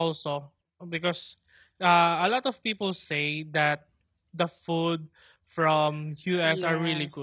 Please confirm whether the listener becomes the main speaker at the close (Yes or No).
Yes